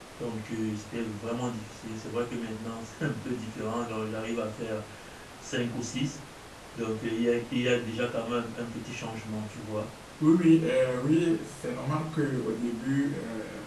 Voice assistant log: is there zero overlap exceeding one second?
Yes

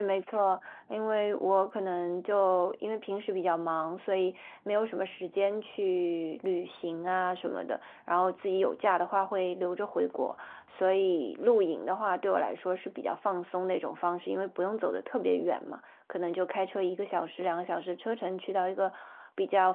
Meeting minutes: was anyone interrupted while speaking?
No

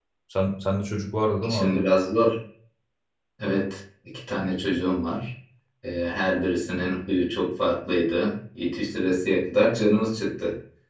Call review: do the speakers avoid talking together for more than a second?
Yes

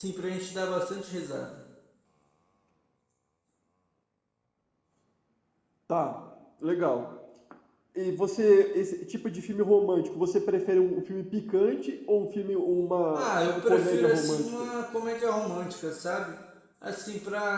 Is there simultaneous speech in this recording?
Yes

